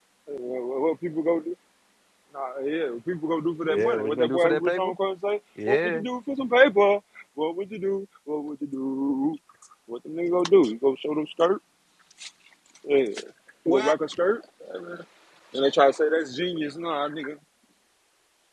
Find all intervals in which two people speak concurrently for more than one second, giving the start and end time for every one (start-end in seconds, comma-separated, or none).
3.7-4.9